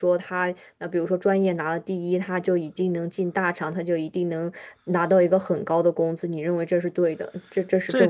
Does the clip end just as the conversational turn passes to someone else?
Yes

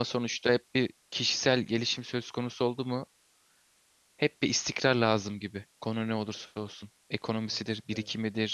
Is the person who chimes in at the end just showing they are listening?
Yes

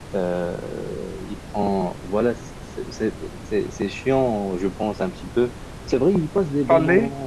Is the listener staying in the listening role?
Yes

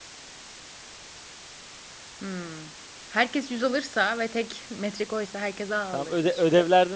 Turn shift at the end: Yes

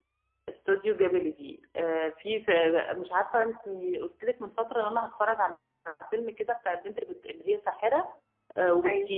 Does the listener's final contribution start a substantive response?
No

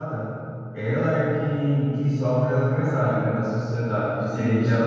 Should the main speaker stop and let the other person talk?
No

